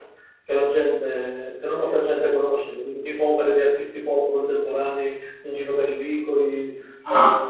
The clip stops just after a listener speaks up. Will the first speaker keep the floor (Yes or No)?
Yes